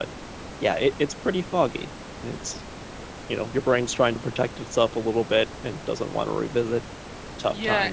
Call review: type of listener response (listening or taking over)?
taking over